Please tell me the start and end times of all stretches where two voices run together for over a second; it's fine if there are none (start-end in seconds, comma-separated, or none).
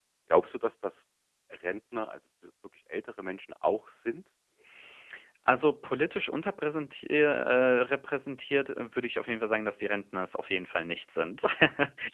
none